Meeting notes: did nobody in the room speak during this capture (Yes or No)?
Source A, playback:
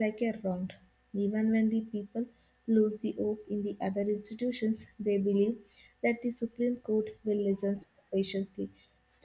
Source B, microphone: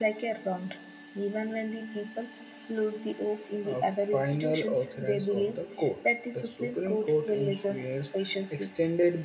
No